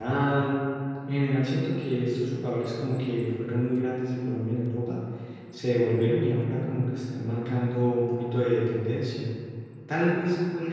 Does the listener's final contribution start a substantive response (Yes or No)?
No